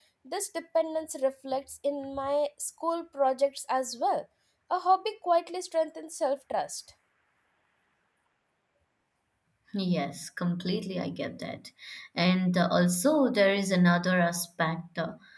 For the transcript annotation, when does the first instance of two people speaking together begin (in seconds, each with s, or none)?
none